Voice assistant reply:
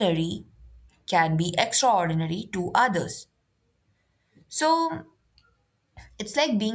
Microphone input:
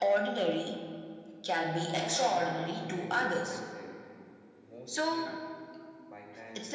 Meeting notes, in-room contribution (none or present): present